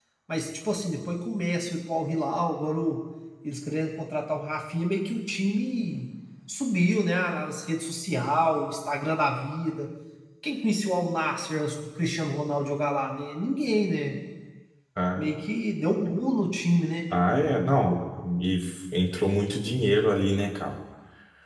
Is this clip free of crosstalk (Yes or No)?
Yes